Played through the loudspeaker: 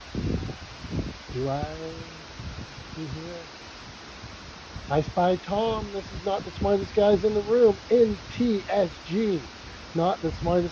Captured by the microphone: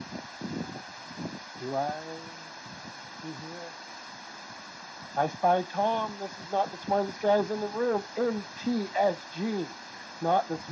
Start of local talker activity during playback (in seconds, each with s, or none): none